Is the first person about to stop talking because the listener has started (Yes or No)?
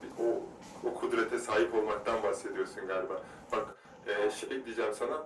No